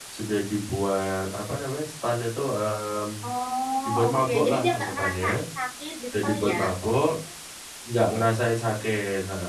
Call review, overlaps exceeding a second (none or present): present